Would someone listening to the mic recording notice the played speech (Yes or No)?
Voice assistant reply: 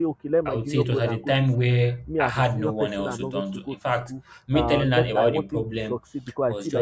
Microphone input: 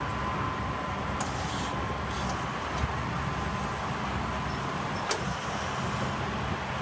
No